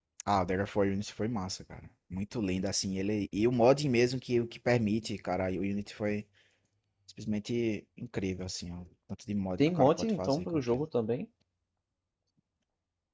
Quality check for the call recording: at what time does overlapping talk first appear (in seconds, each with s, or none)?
9.6 s